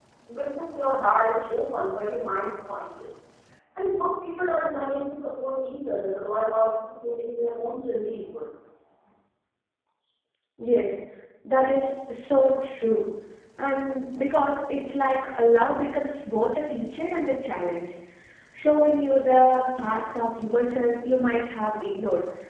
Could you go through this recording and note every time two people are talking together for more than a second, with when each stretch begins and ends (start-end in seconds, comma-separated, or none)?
none